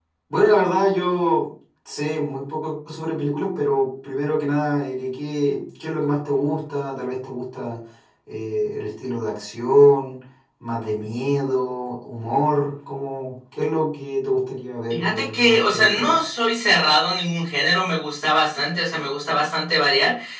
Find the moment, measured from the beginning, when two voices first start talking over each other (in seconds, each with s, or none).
14.9 s